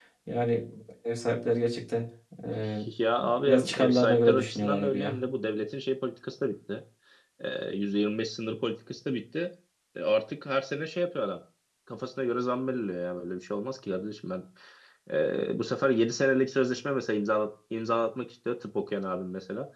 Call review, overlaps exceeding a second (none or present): present